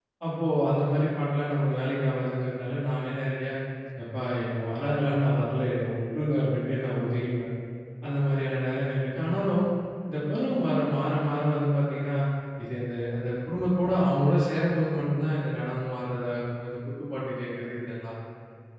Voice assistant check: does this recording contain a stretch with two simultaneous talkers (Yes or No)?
No